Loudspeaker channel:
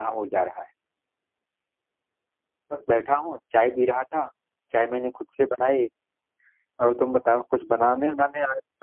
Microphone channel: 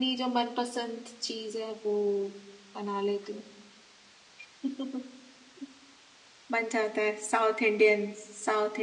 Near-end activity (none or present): present